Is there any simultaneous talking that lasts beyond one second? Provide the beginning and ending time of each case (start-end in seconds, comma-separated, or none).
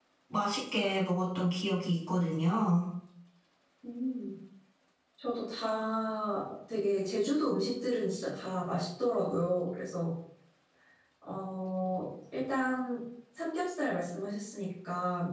none